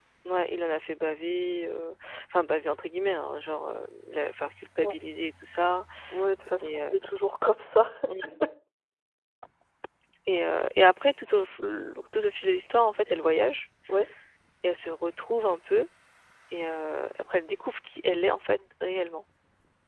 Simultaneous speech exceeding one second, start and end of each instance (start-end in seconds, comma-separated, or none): none